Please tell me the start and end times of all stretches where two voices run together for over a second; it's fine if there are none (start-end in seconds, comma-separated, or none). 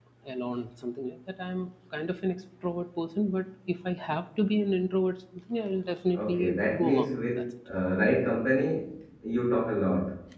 6.1-7.4